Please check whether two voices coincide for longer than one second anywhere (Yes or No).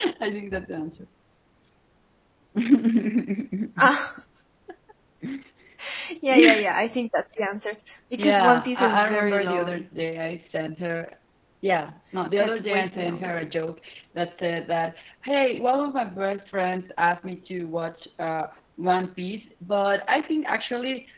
Yes